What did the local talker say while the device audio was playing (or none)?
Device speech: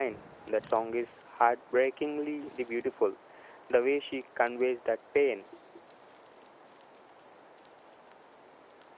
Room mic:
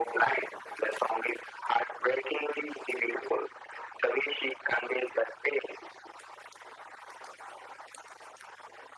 none